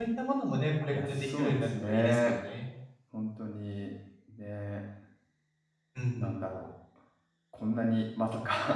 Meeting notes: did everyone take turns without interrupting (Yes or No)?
No